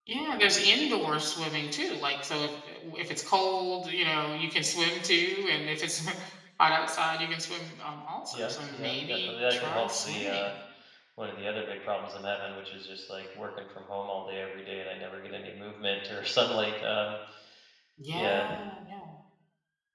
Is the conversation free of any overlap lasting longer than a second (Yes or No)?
No